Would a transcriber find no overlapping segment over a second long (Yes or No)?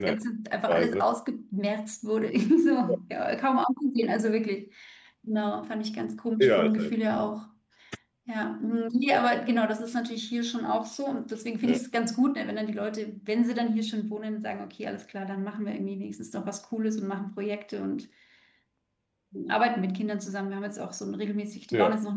Yes